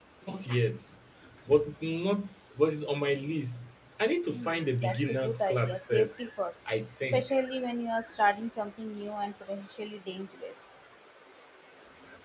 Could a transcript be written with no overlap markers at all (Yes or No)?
No